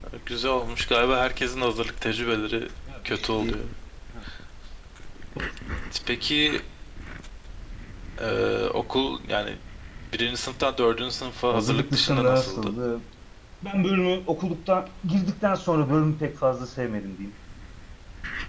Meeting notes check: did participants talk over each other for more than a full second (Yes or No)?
Yes